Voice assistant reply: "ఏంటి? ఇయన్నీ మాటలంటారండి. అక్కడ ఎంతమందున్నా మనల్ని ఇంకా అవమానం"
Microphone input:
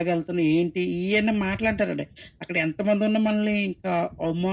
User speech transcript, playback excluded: none

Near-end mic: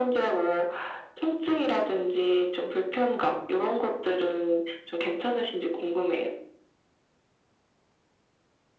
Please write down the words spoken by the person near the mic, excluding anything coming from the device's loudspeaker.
none

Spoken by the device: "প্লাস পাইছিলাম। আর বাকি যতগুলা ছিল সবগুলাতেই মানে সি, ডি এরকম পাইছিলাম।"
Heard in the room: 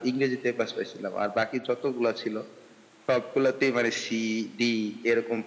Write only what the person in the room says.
none

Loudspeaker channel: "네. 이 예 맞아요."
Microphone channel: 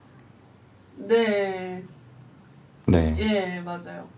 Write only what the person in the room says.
네.

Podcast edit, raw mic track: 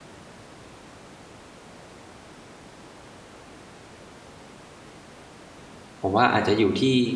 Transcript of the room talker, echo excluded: ผมว่าอาจจะอยู่ที่

